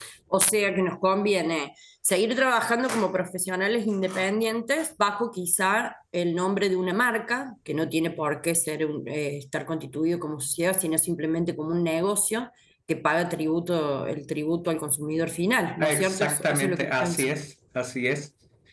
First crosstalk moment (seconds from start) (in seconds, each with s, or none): 15.8 s